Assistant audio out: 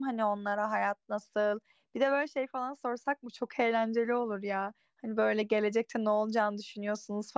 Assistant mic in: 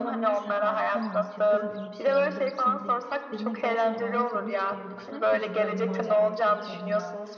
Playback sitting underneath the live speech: No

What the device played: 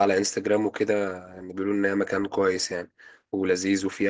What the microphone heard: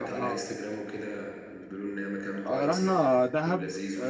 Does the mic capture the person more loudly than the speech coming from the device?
Yes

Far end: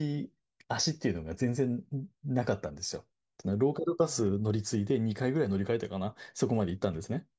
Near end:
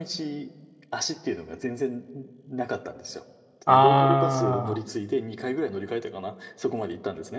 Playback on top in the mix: No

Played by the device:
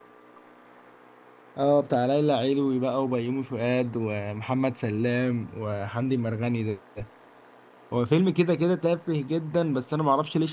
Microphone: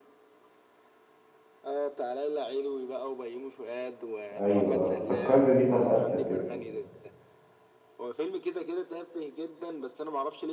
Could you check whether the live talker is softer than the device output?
No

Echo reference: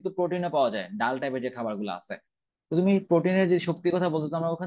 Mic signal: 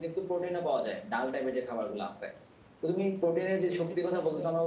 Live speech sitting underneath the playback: Yes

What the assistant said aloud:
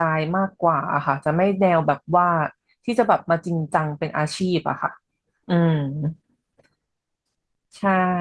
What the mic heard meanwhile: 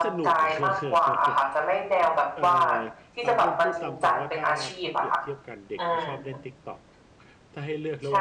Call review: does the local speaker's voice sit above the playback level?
No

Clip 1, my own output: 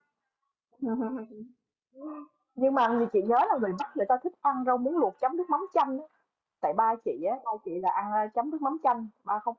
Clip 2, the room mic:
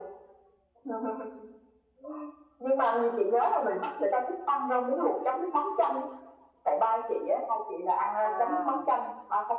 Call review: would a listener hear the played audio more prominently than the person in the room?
Yes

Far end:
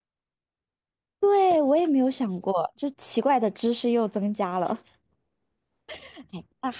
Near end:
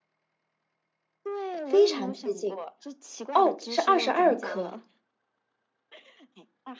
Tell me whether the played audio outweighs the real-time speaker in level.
No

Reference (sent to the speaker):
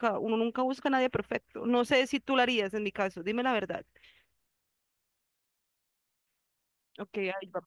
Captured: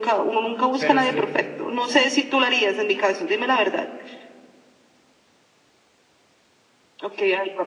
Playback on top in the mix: Yes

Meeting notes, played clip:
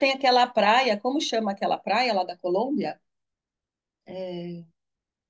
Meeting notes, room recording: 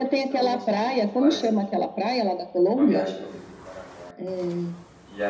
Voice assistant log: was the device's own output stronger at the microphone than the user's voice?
Yes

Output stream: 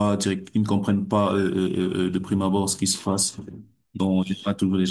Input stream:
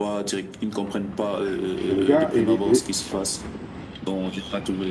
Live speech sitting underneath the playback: No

